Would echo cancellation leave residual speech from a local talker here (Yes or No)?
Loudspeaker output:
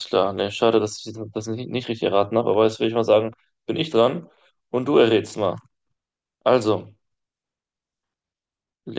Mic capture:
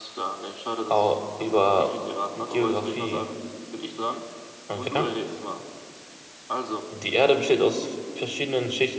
Yes